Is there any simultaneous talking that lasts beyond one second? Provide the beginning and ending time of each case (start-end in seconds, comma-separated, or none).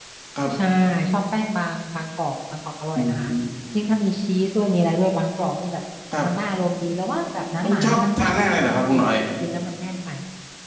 7.6-9.1